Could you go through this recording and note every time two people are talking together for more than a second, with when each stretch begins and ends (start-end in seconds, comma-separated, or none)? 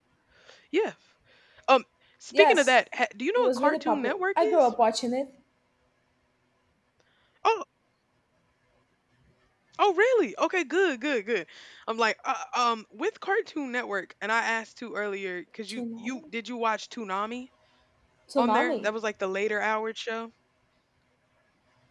3.4-4.7